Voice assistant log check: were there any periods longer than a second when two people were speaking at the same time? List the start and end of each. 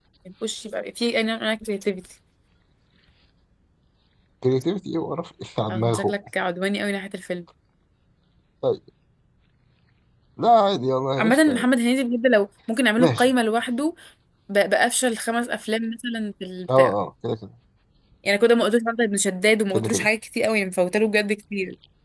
none

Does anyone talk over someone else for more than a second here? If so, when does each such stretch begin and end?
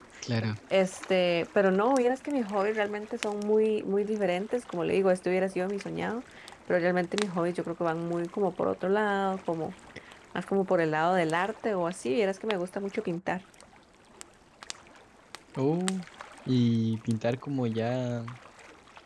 none

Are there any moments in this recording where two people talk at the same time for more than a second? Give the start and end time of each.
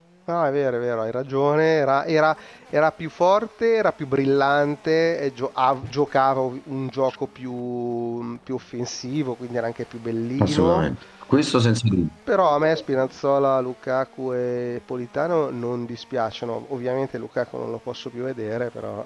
none

